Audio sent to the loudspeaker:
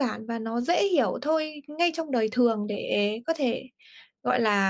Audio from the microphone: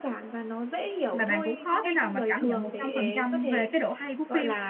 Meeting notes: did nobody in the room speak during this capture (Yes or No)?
No